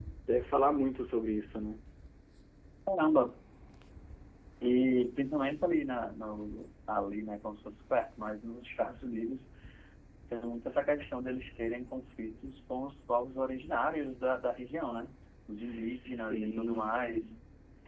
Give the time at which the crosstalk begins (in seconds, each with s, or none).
15.6 s